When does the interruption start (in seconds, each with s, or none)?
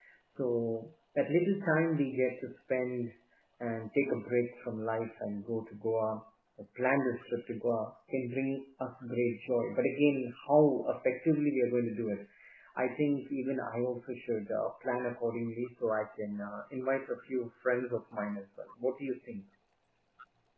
none